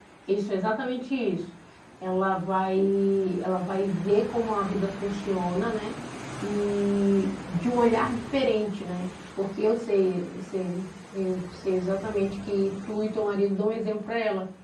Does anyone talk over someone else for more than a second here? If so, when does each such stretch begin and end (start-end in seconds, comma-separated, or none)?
none